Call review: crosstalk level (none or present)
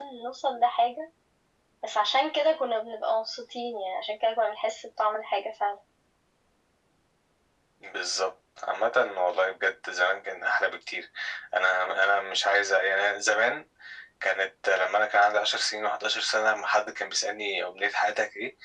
none